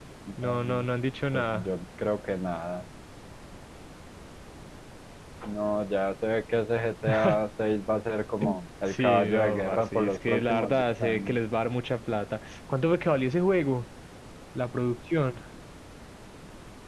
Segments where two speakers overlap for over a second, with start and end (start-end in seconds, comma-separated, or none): 8.9-11.4